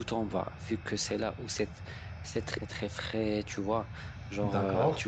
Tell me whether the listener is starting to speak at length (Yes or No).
No